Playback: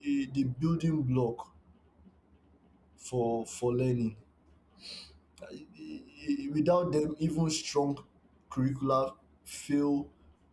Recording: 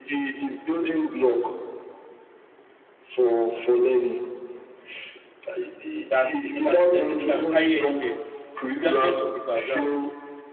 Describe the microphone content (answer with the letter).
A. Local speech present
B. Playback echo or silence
A